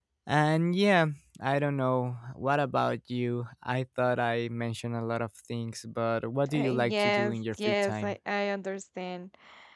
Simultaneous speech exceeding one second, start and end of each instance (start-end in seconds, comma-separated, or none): 6.5-8.2